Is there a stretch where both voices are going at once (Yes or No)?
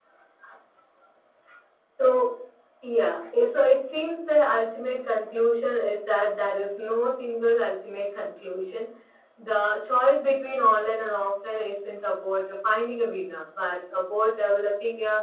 No